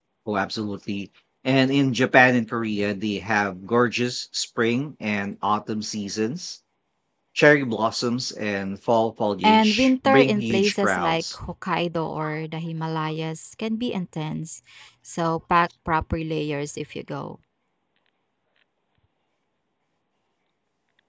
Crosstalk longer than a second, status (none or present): present